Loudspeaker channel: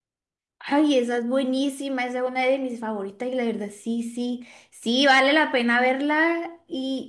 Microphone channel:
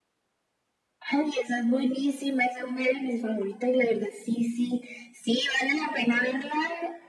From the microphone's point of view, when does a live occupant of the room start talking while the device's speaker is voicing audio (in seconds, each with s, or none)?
none